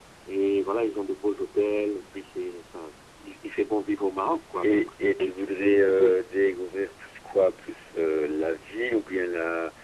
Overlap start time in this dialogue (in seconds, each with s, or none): 4.6 s